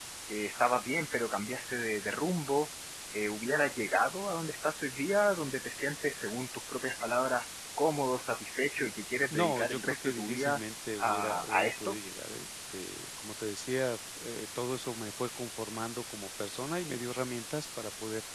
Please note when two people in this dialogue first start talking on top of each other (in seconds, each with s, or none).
9.3 s